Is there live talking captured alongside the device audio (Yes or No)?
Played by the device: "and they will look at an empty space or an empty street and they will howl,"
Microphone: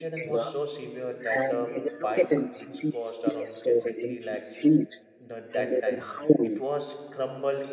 Yes